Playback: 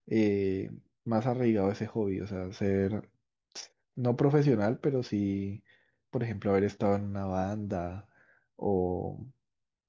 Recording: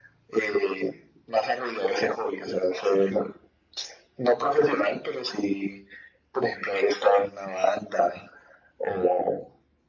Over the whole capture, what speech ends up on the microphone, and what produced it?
echo only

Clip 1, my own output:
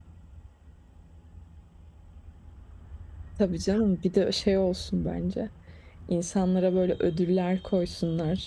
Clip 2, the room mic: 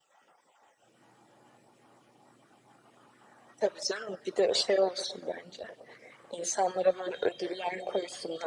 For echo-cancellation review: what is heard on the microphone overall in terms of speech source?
echo only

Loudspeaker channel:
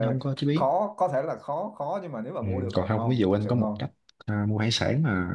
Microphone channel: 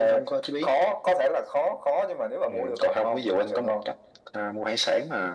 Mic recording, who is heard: echo only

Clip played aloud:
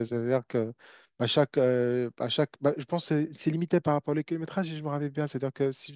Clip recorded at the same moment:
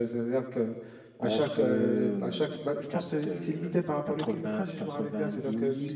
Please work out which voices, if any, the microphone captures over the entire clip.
both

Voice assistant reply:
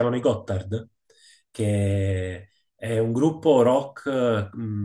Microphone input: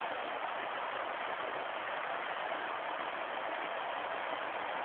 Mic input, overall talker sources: neither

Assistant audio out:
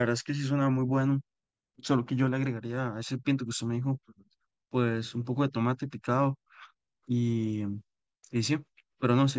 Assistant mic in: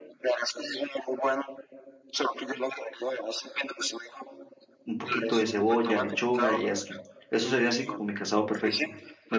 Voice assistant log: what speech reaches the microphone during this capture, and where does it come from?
both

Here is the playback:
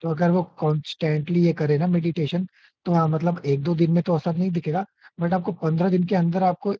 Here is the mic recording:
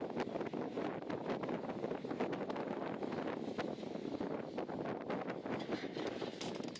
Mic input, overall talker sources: neither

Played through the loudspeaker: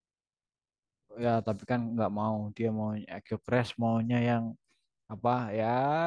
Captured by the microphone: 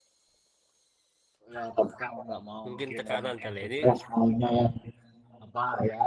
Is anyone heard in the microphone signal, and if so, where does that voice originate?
both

